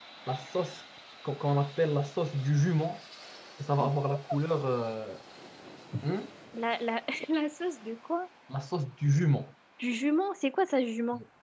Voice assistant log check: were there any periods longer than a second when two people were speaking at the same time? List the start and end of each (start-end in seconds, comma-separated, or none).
none